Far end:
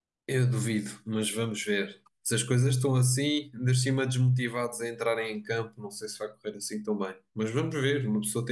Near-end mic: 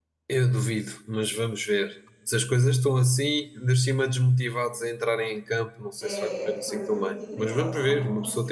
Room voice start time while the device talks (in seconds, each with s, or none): 6.0 s